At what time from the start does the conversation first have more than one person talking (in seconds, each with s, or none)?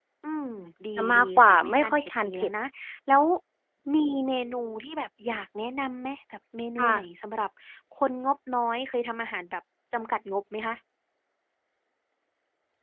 1.0 s